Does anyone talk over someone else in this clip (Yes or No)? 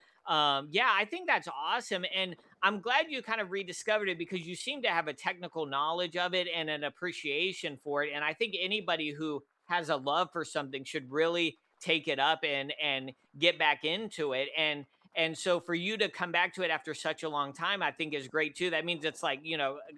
No